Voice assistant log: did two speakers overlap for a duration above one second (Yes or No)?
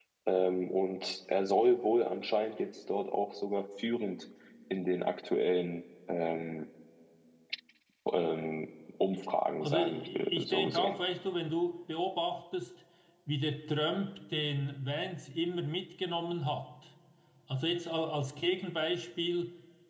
Yes